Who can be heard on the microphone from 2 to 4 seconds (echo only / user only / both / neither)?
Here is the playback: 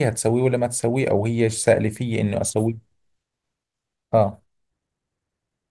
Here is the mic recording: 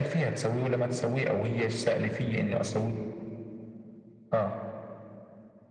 echo only